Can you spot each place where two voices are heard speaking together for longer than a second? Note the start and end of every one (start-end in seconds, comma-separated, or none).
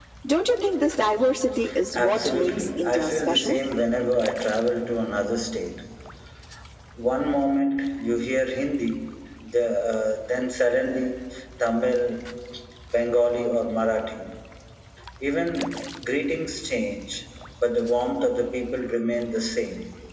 1.9-3.6